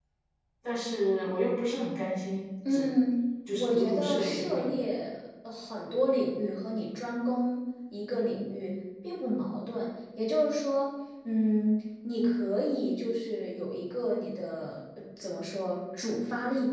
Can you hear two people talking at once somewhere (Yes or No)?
Yes